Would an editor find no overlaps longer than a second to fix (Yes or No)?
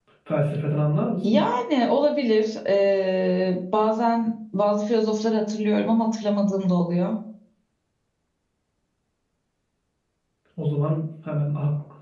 Yes